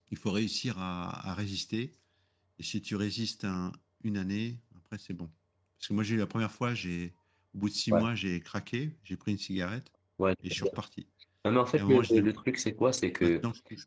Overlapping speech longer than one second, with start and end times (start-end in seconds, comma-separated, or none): none